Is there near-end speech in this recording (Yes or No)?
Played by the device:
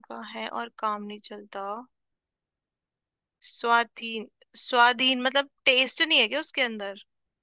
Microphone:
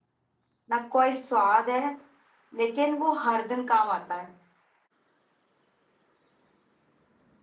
Yes